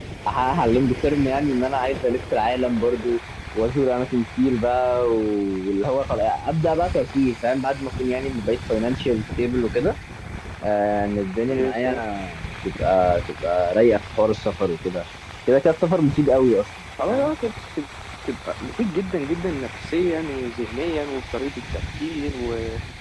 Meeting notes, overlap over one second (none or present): none